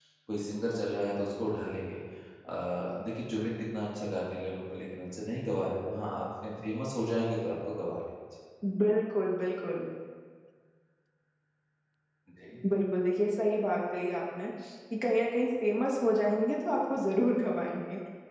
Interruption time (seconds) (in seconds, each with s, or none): none